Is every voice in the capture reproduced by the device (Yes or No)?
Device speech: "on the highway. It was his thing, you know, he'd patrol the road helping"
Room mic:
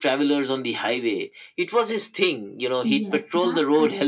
No